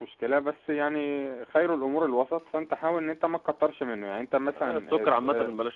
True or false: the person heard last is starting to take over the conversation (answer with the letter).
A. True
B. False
A